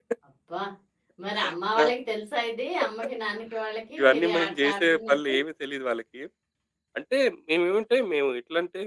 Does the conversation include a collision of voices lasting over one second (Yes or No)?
Yes